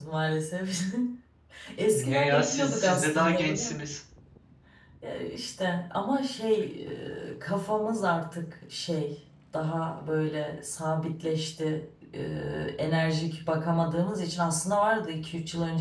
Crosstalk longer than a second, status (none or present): present